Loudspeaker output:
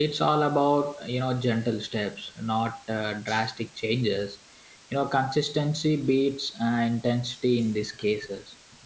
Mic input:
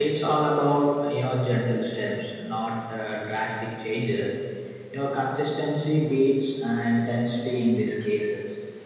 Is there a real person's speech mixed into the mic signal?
No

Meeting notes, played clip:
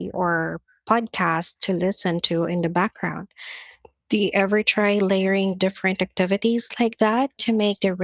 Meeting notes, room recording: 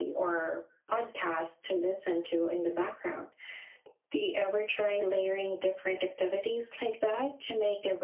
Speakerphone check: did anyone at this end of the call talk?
No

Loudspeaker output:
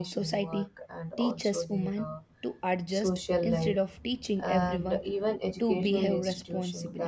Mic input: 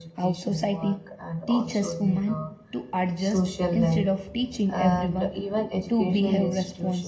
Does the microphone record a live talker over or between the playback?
No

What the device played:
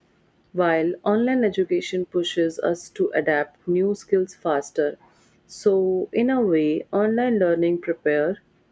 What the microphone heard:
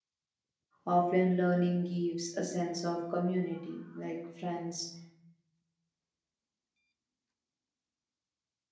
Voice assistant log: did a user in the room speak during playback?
Yes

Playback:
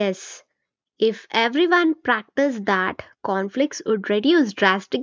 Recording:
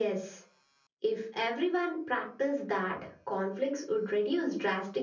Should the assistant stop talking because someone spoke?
No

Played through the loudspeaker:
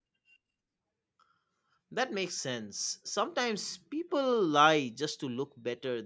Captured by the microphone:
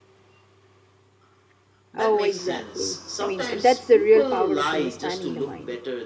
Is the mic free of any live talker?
No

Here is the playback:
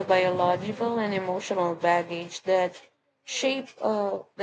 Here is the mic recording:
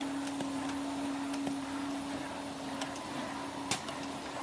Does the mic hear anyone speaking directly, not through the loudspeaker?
No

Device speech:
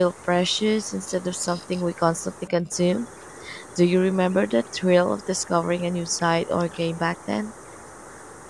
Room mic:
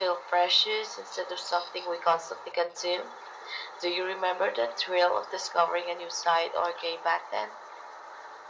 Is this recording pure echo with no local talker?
Yes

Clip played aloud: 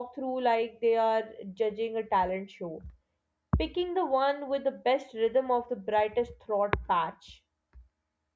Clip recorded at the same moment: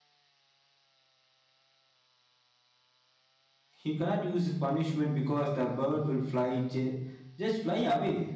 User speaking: Yes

